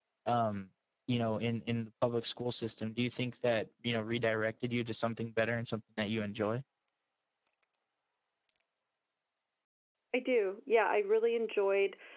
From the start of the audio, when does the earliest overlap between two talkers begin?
none

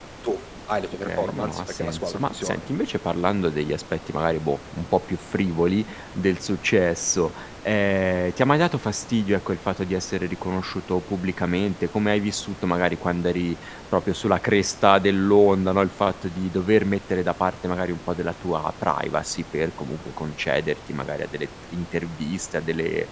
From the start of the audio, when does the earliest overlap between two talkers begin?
1.0 s

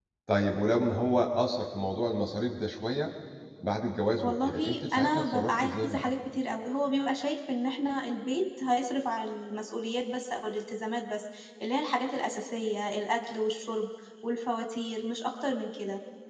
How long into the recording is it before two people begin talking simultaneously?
4.2 s

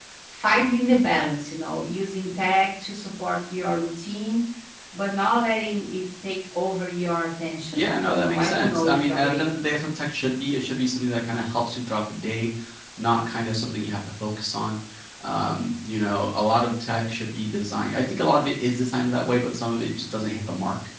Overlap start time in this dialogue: 7.7 s

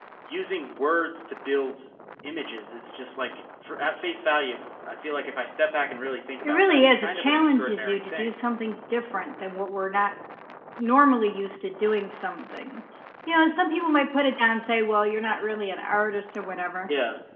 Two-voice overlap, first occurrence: 6.4 s

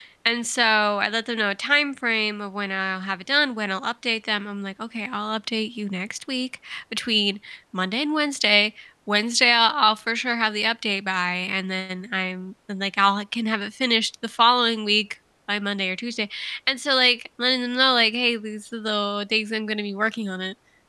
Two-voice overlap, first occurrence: none

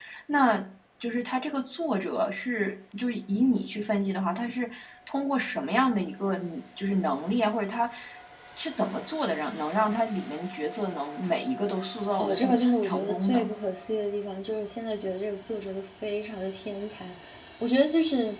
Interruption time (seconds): 12.2 s

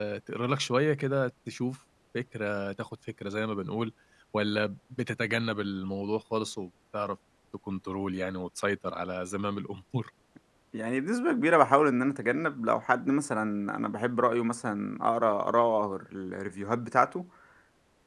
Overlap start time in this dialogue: none

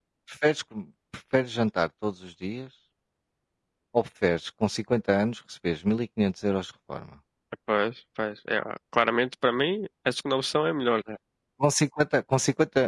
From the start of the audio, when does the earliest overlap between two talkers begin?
none

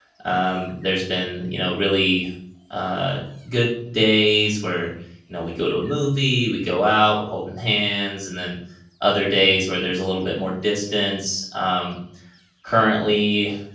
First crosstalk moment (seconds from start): none

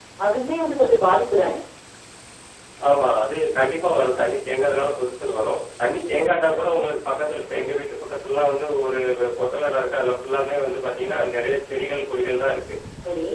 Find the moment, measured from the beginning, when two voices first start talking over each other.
none

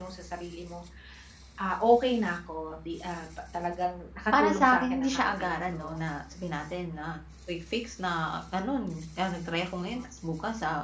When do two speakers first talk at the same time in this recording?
4.3 s

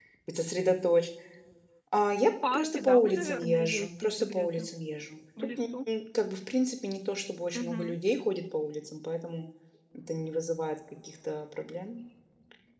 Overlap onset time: 2.5 s

